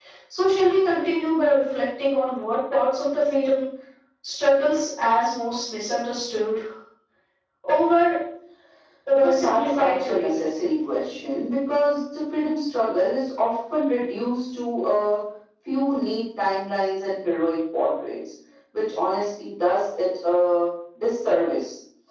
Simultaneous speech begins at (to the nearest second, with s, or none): 9 s